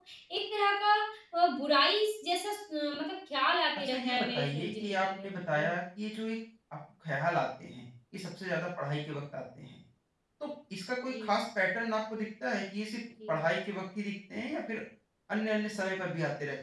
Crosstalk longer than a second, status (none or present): present